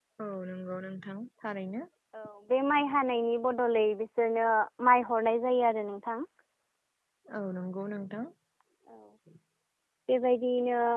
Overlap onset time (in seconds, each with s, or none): none